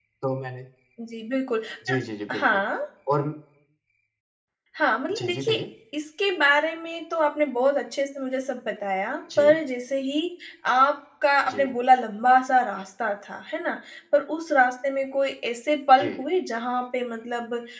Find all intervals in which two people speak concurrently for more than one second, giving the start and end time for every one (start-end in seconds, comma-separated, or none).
none